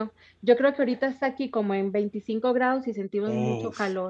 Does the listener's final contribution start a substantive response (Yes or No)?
Yes